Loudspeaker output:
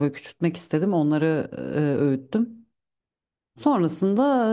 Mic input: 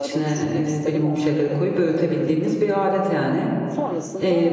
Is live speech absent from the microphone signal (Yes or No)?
No